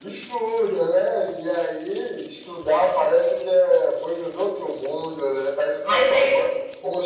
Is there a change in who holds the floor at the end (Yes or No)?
Yes